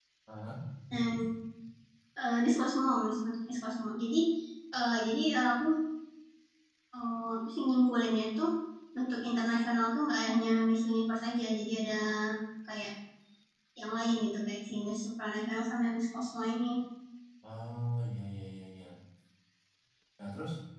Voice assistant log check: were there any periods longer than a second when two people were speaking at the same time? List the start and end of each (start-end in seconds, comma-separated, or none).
none